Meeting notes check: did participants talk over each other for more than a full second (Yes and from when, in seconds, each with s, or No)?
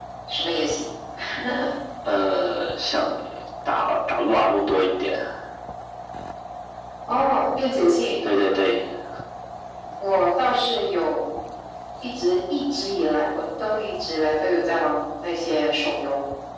No